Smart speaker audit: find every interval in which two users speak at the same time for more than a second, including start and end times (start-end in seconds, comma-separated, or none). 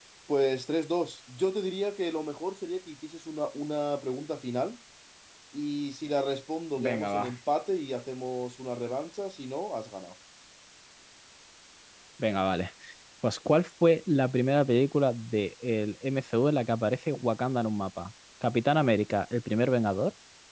none